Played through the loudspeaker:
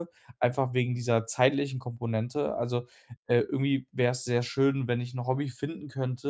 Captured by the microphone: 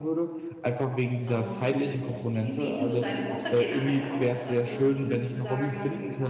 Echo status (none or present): present